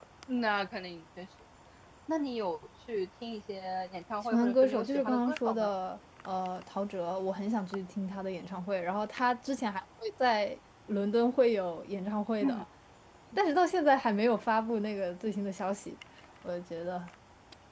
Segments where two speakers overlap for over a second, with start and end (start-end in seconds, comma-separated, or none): 4.2-5.7